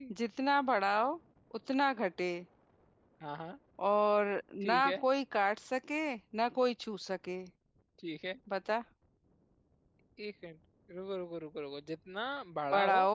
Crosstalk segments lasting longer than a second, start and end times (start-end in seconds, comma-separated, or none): none